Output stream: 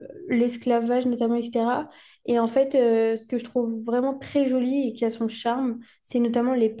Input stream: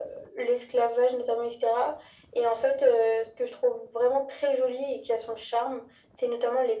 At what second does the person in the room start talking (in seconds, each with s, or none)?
none